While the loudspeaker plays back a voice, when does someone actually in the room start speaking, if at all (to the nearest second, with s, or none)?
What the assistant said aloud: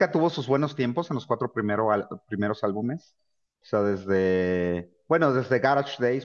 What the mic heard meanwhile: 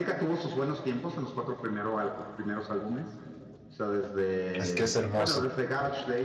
5 s